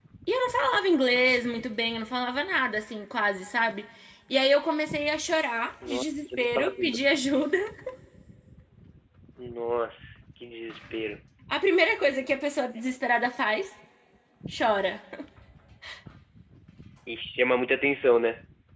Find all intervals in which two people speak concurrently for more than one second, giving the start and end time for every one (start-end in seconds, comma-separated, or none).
5.9-7.4